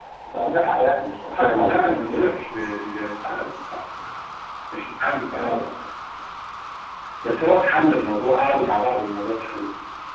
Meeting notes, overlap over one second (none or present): none